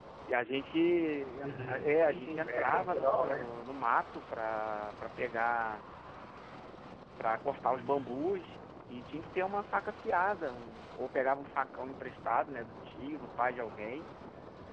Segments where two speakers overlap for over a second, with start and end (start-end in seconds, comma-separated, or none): 1.6-3.6